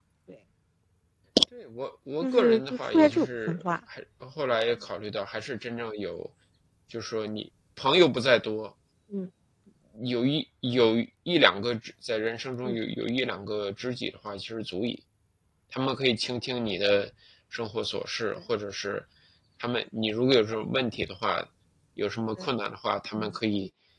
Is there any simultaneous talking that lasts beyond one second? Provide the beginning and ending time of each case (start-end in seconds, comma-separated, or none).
2.2-3.6